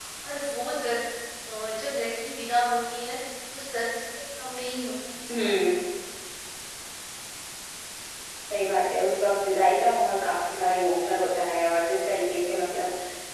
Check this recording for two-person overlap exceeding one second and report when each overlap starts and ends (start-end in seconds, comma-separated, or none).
none